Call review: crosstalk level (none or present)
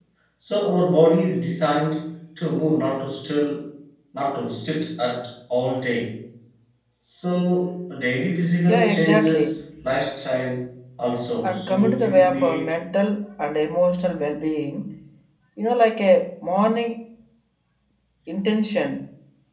present